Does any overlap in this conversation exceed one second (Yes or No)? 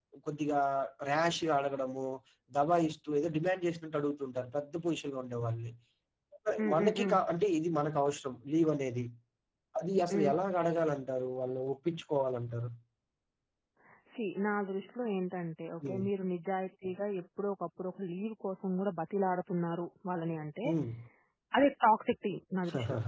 No